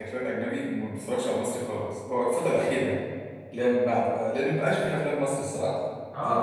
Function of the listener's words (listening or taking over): taking over